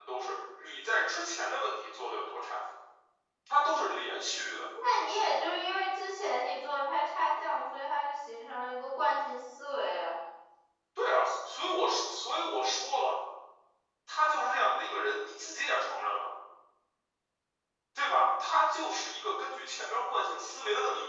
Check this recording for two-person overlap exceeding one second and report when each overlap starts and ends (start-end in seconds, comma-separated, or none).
none